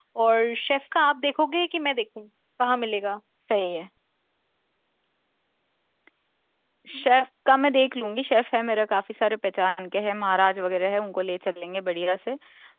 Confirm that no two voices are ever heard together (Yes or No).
Yes